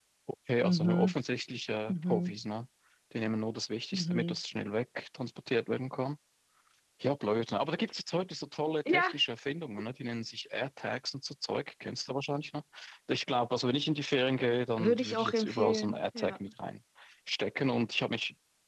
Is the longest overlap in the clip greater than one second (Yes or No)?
Yes